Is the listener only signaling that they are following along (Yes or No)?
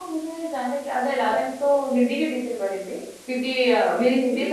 Yes